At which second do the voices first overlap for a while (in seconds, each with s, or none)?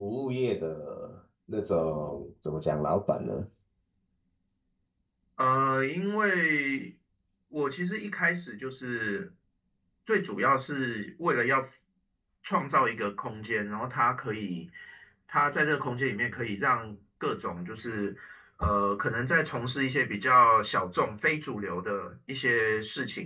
none